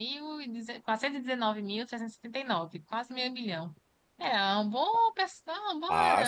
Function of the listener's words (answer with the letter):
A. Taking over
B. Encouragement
A